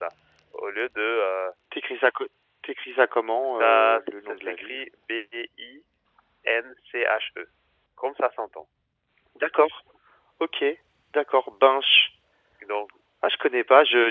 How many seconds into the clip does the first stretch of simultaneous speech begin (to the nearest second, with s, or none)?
3 s